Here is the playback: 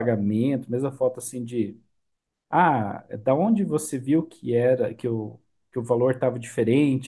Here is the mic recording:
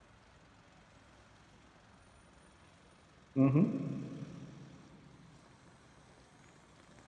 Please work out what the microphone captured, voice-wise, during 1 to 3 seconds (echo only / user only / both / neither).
neither